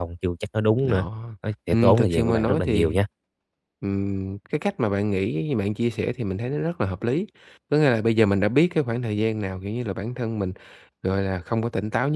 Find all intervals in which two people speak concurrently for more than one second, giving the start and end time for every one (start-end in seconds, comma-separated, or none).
1.7-3.0